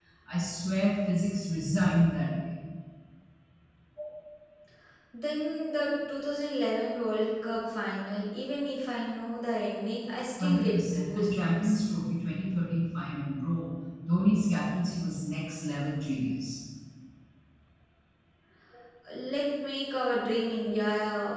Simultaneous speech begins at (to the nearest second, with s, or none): 10 s